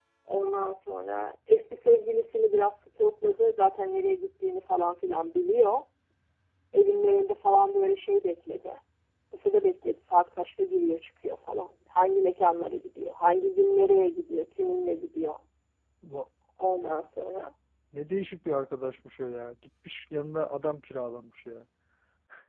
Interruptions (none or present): none